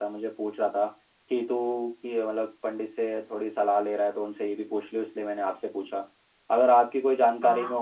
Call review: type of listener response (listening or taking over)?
listening